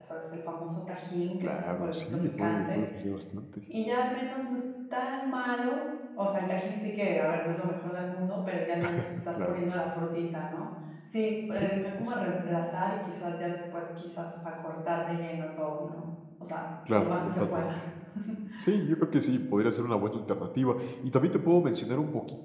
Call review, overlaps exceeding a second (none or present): present